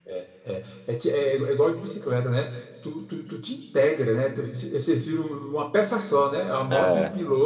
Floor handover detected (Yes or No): No